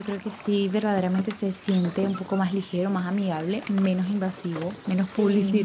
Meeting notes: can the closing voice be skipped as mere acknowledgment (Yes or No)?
No